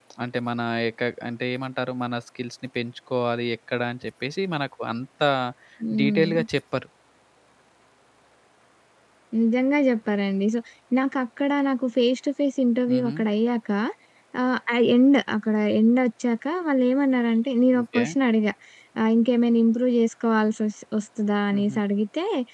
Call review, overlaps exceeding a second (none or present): none